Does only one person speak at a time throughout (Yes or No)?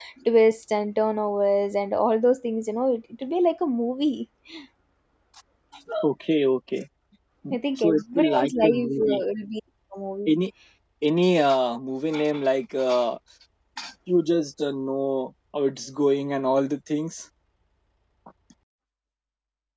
No